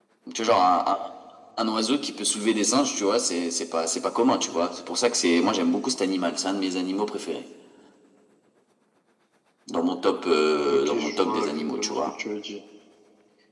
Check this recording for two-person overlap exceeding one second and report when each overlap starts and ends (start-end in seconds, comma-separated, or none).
10.7-12.0